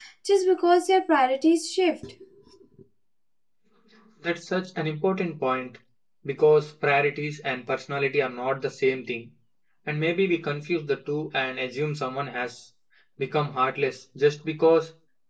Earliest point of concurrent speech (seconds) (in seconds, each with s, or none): none